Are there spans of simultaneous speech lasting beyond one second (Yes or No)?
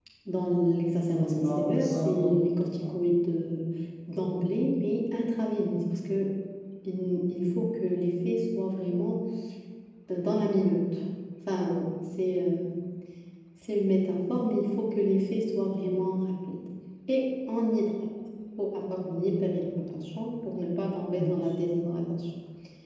Yes